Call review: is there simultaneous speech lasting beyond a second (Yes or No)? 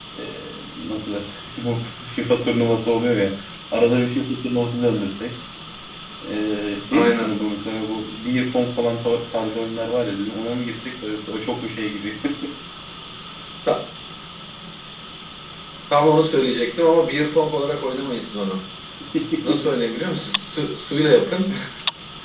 No